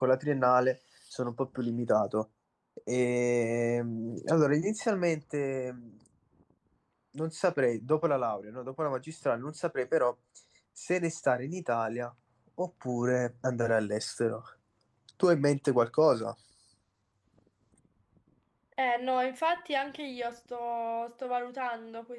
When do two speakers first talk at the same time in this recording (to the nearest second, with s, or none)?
none